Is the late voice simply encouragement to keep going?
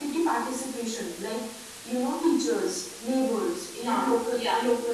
Yes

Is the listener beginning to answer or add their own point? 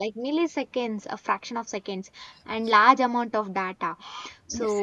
No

